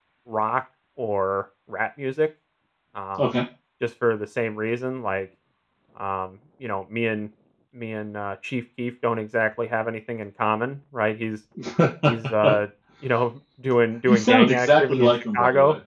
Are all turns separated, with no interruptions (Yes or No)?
No